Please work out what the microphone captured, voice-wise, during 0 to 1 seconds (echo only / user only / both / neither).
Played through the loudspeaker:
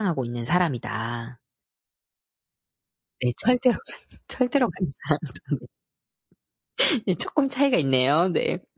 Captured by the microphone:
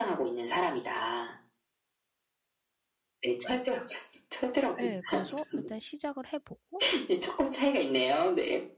echo only